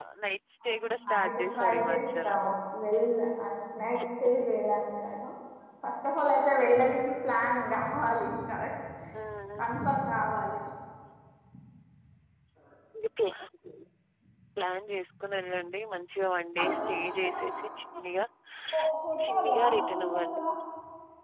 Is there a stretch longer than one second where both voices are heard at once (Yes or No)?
Yes